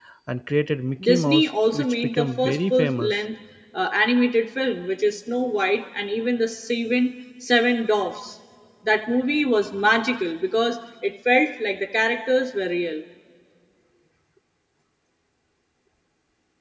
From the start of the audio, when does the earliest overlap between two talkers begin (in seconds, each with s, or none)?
1.0 s